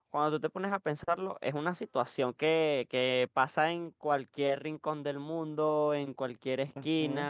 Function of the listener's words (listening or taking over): listening